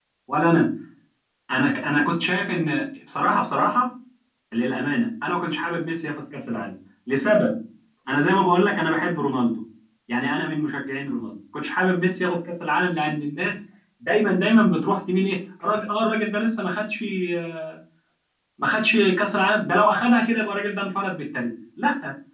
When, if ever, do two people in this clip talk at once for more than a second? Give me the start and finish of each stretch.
none

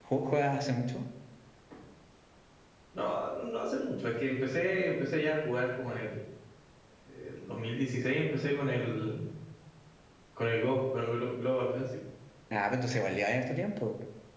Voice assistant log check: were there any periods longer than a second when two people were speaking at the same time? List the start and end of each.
none

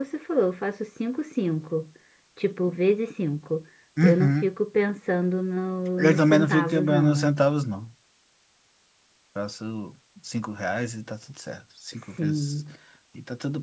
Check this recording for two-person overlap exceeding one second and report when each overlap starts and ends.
6.0-7.3

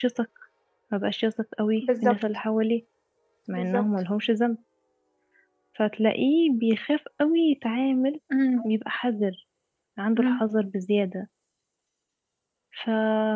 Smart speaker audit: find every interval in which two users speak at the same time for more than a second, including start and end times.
none

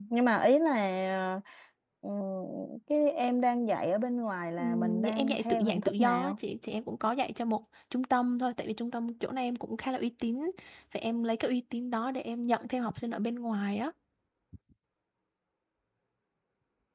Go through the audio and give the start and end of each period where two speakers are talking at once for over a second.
4.6-6.4

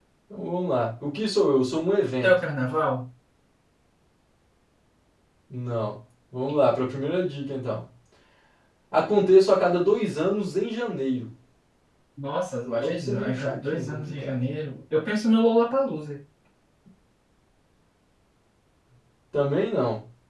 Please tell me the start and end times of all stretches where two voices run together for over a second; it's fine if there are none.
12.7-14.4

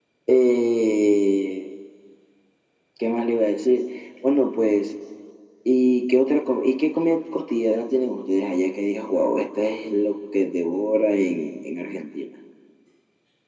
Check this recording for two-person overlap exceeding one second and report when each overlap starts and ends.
none

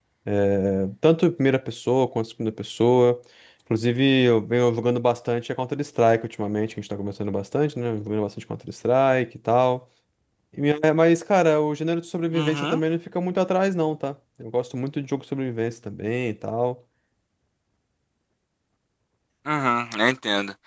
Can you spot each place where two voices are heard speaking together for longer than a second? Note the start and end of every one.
none

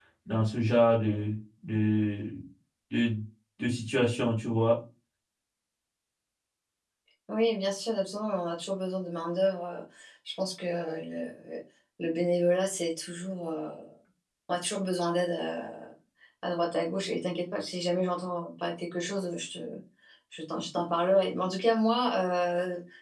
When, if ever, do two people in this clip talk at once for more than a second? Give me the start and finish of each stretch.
none

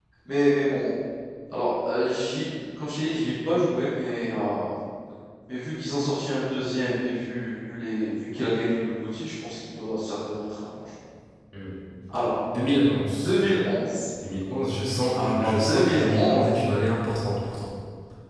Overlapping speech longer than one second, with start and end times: 15.2-16.5

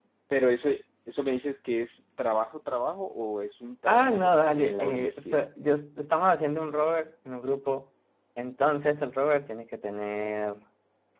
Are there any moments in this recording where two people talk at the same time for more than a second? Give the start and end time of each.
3.9-5.4

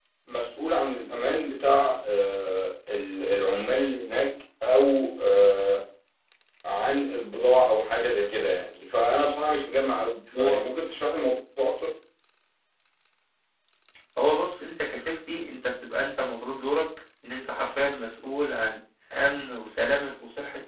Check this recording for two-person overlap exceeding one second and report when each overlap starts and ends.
none

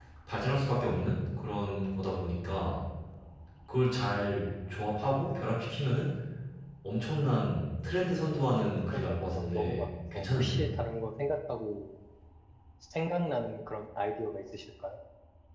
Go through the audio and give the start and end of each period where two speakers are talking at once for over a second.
8.9-10.7

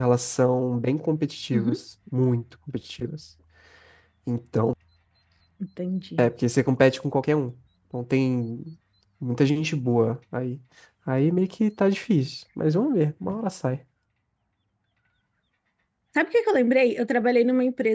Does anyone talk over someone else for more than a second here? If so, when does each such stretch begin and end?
none

